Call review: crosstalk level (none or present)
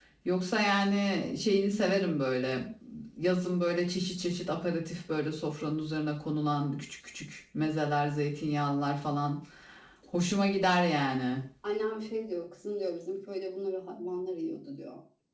none